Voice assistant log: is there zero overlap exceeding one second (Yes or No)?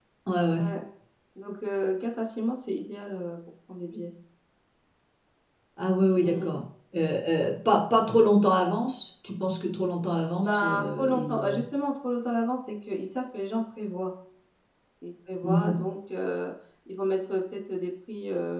No